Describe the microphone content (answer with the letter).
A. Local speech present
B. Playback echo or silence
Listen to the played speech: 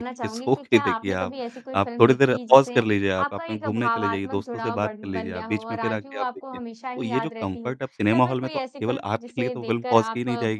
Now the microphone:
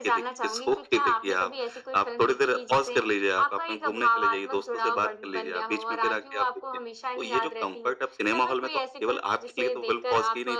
B